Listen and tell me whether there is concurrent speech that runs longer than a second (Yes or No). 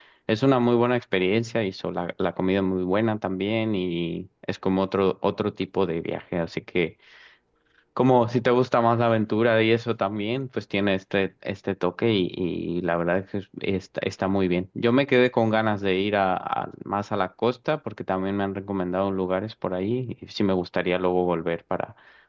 No